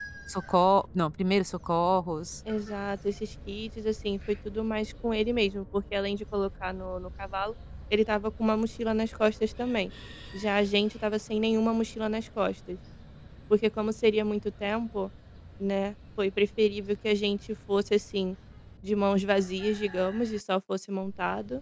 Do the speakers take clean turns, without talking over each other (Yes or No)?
Yes